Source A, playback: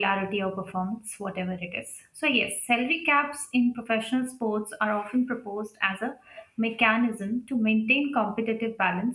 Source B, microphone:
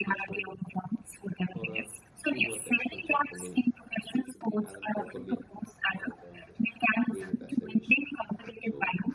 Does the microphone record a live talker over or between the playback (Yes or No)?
Yes